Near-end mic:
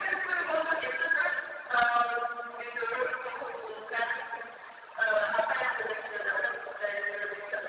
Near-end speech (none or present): none